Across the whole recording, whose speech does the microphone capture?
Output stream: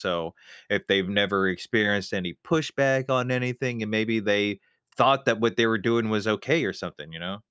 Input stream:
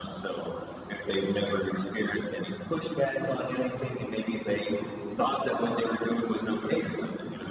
echo only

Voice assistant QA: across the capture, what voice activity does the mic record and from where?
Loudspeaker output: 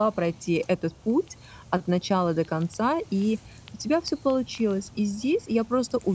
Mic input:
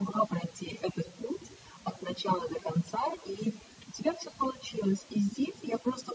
echo only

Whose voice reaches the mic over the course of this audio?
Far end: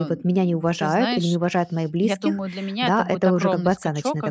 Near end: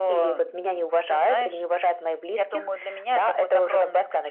echo only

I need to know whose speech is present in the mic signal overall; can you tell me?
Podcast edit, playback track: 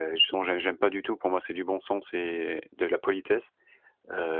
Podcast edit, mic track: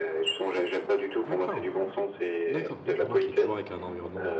both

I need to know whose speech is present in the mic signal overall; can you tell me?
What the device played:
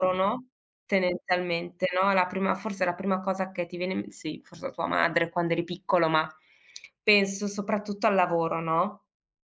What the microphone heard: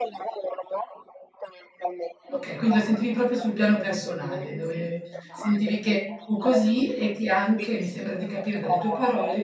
both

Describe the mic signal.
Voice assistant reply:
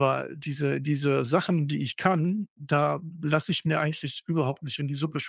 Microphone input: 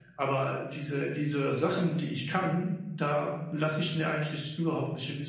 echo only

